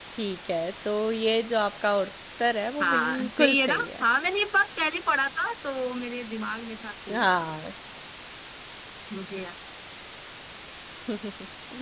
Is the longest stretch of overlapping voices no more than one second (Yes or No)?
No